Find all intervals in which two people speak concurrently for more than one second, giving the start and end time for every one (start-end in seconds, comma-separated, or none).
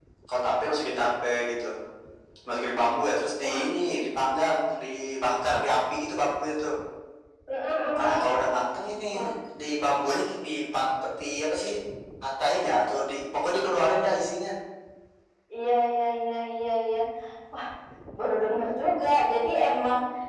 none